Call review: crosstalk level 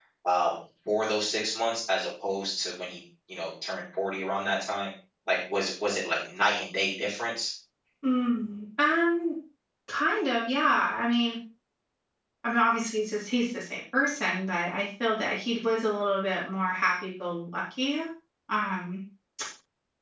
none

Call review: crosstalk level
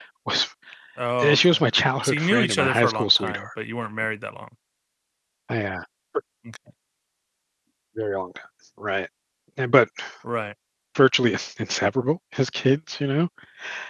present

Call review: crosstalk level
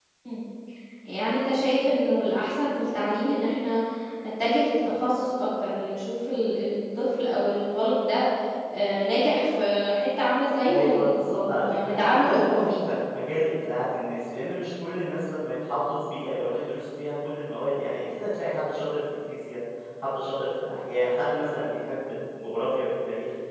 present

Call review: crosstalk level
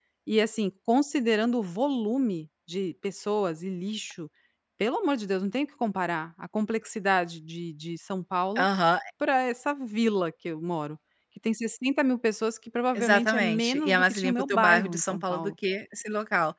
present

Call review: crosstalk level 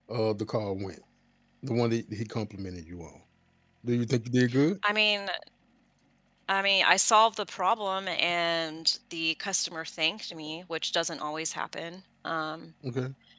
none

